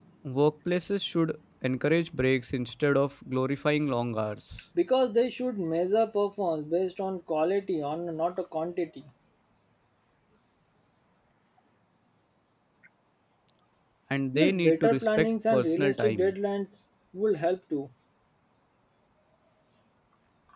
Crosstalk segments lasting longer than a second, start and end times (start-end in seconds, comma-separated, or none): 14.3-16.3